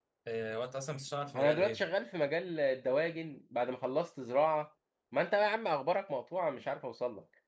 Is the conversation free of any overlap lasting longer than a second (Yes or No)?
Yes